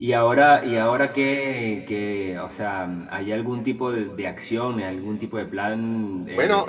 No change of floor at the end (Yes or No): Yes